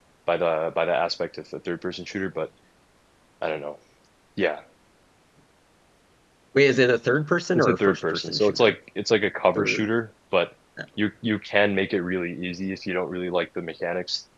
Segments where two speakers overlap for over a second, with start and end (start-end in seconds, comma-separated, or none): 7.5-8.8